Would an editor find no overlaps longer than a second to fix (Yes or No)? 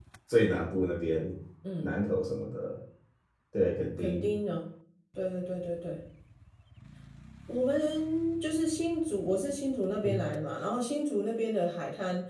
Yes